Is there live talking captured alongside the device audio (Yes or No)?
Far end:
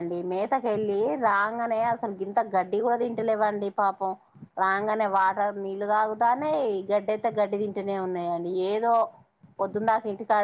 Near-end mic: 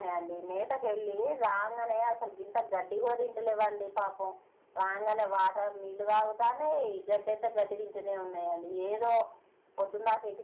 No